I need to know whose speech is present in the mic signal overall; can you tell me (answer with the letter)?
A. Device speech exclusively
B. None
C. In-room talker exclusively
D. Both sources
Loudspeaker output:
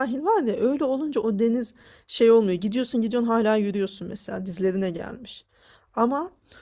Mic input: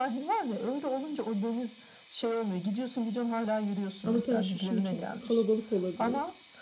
D